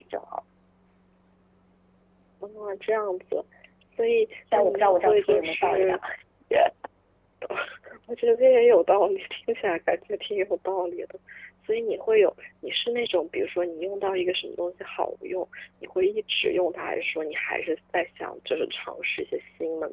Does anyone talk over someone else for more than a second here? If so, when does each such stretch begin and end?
4.5-6.0

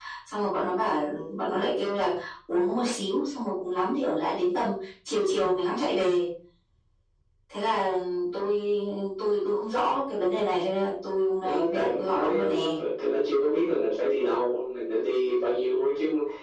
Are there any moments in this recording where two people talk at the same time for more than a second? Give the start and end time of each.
11.4-12.8

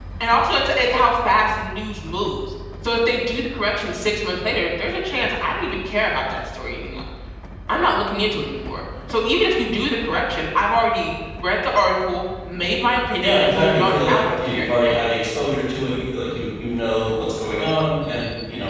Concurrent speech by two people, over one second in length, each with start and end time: 13.2-15.0

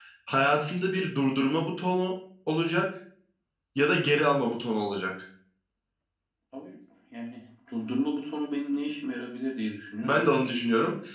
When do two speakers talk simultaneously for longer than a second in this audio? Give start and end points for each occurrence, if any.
none

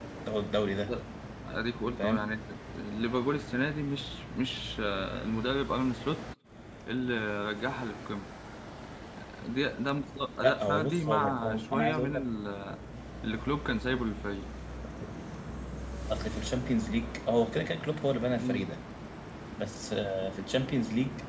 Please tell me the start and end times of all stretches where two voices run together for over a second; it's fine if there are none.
10.4-12.2

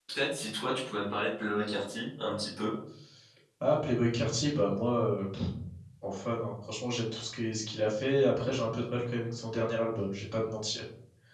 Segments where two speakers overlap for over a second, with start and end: none

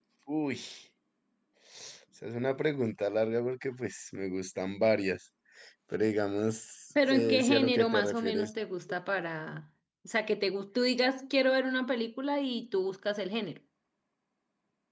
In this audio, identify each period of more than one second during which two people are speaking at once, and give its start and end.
7.1-8.5

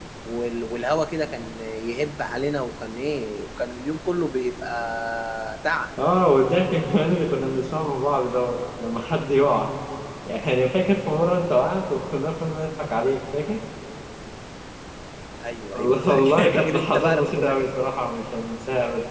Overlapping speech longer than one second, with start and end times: 15.8-17.6

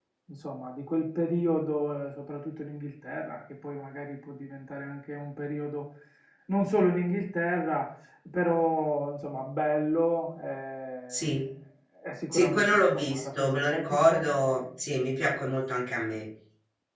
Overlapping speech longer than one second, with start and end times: 12.3-14.2

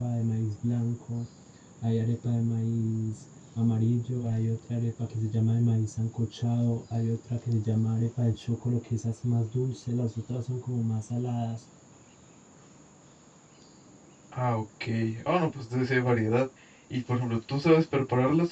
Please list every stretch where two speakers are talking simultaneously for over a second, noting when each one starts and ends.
none

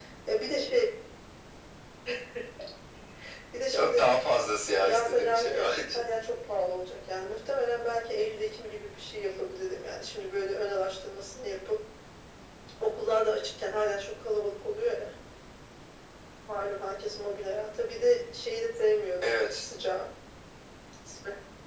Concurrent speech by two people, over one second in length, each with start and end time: 4.8-6.0

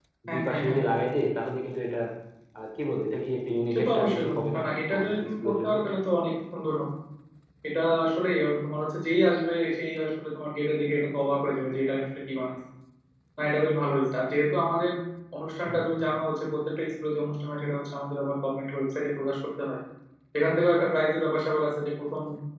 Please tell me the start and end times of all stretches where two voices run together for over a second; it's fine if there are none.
3.7-5.7

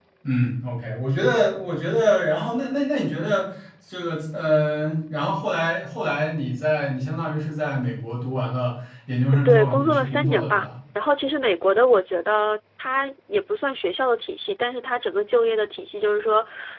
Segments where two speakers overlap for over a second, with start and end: 9.4-10.7

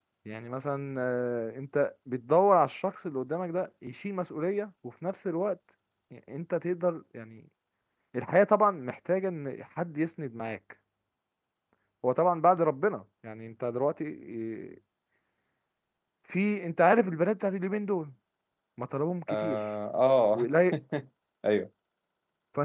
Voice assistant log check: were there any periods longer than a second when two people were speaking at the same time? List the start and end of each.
none

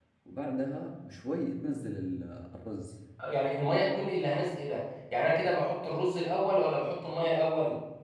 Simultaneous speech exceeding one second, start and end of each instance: none

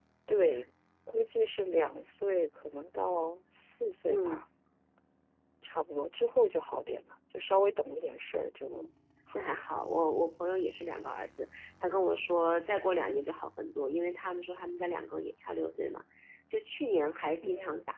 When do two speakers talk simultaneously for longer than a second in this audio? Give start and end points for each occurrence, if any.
none

